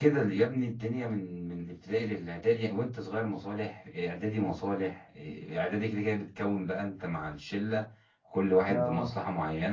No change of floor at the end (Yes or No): Yes